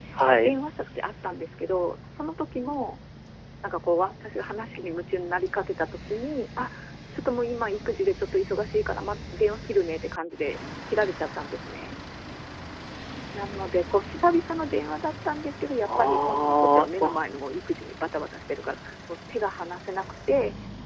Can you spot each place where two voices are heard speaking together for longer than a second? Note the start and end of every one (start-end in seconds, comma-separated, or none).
15.8-17.2